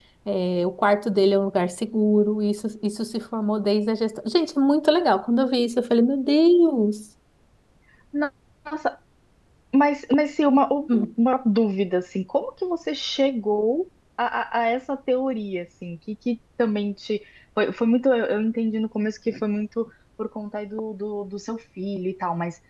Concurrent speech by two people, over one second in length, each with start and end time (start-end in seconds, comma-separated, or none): none